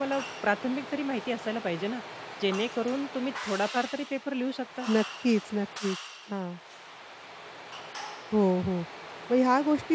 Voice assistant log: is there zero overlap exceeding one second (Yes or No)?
Yes